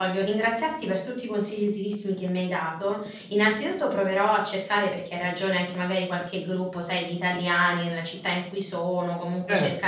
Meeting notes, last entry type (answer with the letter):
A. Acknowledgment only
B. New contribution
A